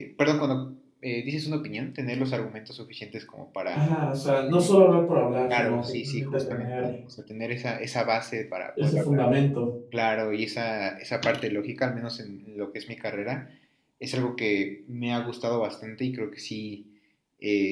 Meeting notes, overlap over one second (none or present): present